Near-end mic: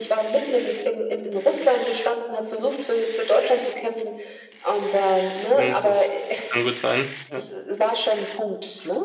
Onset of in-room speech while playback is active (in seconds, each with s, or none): 5.6 s